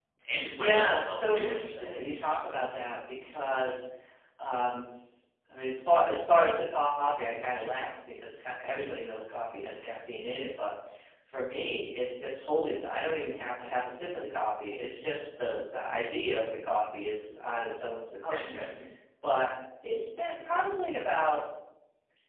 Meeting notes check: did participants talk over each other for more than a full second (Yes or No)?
Yes